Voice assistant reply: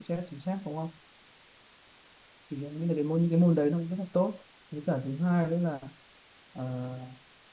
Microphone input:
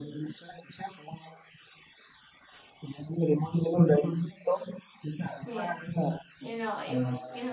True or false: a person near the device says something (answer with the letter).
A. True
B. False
A